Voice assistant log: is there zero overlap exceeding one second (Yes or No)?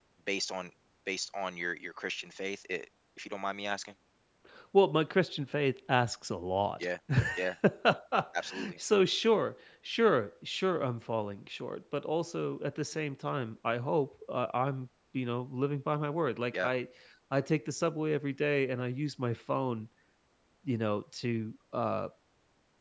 Yes